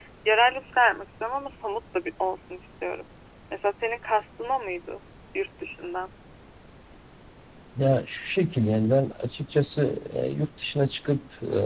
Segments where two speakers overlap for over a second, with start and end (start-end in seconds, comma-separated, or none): none